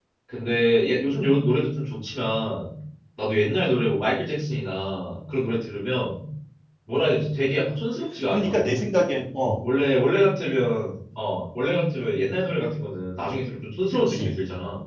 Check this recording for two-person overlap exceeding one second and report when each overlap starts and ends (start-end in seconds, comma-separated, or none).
none